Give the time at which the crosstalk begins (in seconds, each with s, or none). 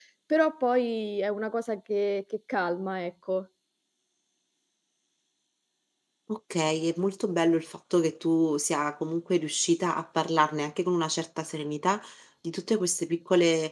none